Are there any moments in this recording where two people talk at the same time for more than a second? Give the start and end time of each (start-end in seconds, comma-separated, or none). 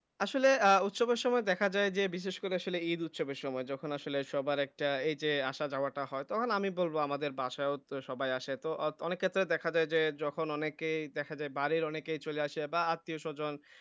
none